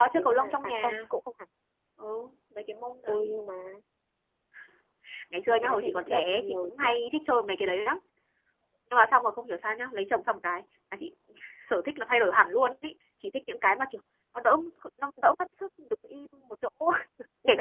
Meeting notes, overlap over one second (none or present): present